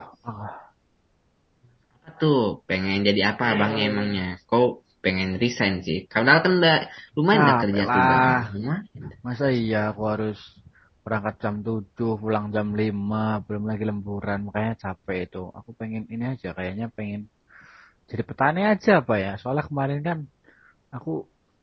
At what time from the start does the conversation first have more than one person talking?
7.3 s

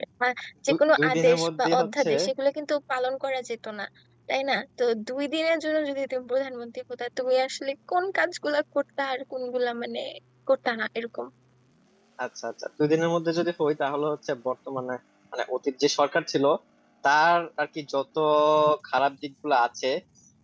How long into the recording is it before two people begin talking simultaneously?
0.7 s

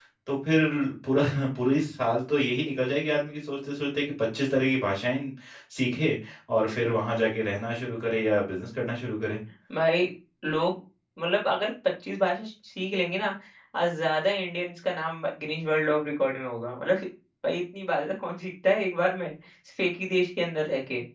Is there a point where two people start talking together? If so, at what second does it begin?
none

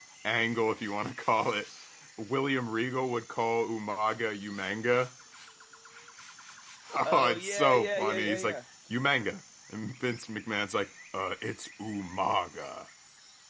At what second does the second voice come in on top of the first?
7.0 s

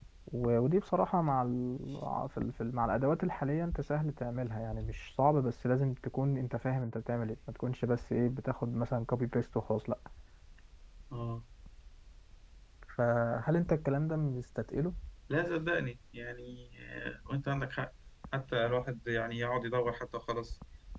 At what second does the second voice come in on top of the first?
none

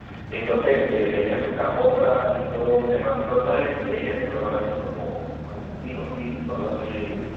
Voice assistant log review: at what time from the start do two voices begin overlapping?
none

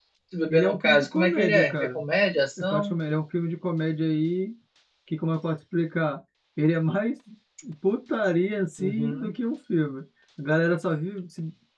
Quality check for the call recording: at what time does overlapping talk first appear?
0.5 s

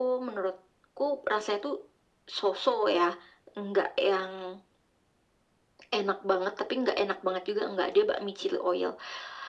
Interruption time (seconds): none

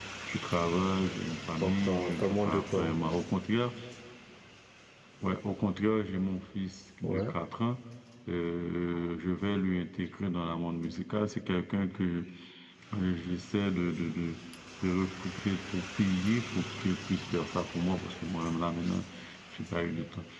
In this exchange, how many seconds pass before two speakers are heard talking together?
1.6 s

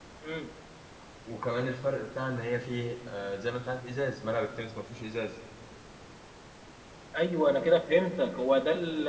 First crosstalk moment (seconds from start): none

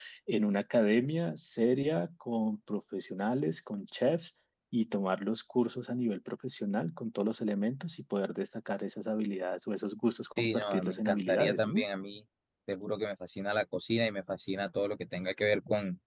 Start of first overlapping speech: 10.4 s

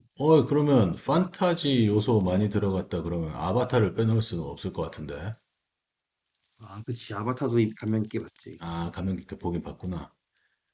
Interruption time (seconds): none

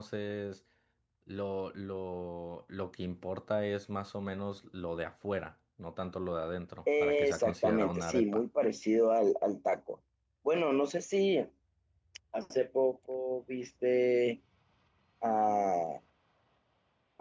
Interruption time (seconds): 6.9 s

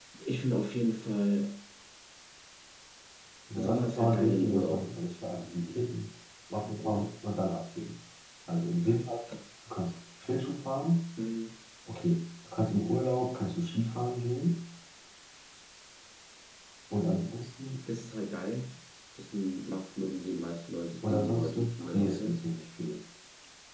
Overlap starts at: 3.6 s

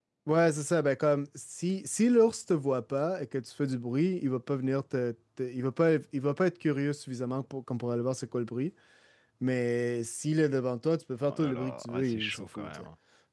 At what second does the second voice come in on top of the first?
11.3 s

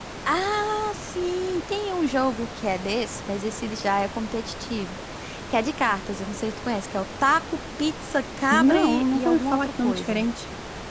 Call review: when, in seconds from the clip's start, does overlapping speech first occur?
8.5 s

